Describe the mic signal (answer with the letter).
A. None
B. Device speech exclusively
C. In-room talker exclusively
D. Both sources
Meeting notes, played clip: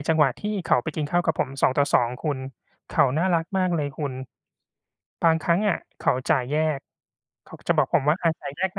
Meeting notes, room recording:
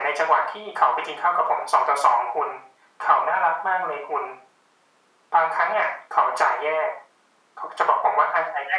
B